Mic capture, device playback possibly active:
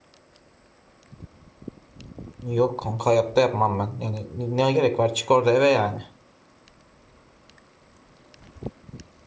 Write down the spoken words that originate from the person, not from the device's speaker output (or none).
Yok kanka hayatta yapmam ben. Yani ne gerek var çık orada eve yani.